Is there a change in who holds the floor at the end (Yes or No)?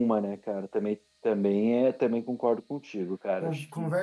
Yes